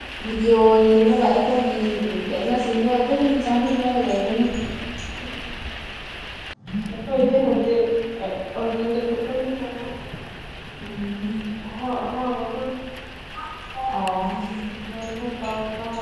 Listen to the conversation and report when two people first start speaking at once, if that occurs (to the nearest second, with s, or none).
none